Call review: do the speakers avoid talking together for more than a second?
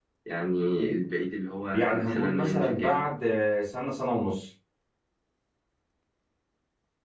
No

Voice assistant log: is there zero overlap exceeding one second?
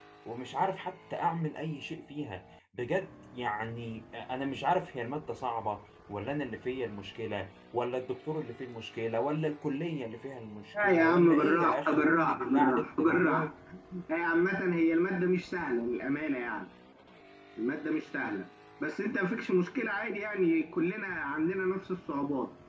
No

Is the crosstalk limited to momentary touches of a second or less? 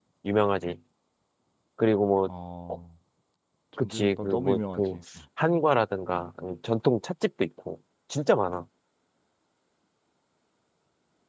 No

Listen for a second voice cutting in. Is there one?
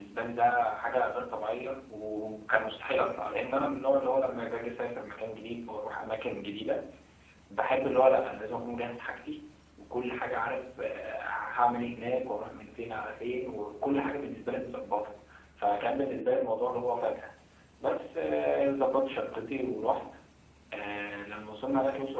No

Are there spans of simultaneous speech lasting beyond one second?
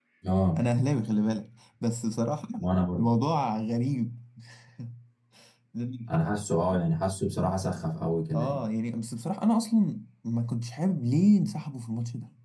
No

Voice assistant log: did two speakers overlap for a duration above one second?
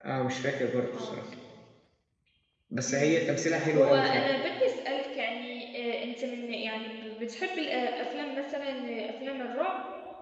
No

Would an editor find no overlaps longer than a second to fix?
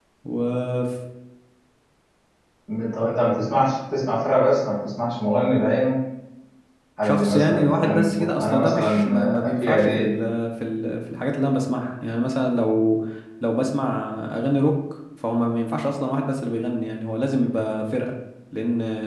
No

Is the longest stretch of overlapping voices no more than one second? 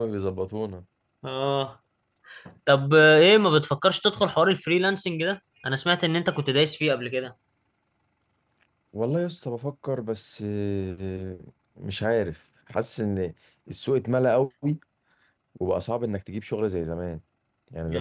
Yes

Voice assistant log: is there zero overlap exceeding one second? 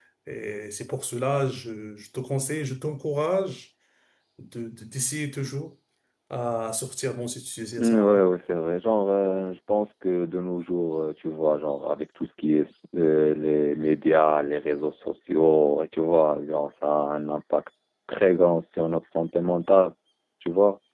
Yes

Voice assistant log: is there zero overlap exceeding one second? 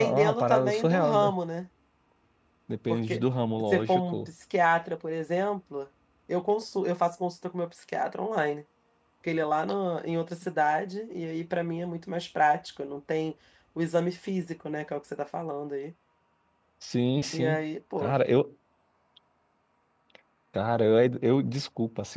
No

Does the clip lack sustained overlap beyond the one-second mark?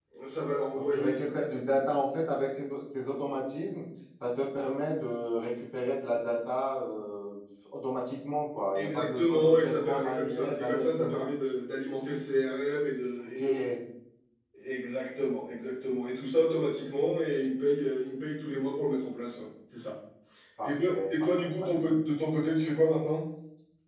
No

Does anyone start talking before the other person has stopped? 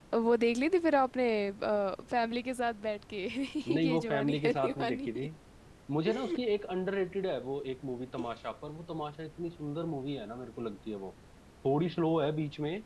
Yes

